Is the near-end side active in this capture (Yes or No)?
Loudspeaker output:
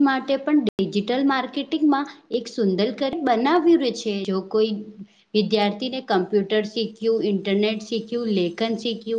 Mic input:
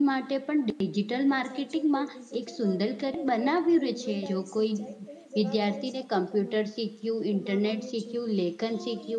Yes